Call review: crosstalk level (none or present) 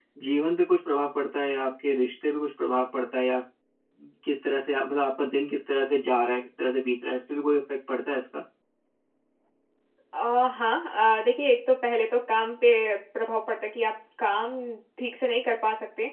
none